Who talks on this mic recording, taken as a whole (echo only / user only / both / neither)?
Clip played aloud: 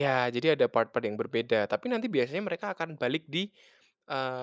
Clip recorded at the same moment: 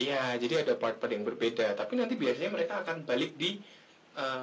echo only